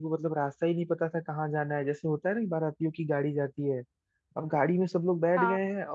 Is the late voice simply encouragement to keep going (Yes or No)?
Yes